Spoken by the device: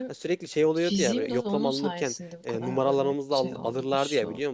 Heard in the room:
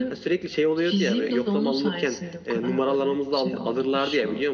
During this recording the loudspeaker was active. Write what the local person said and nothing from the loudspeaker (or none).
none